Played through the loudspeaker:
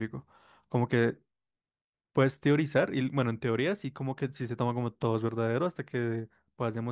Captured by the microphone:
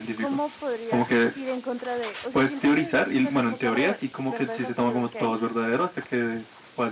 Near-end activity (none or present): present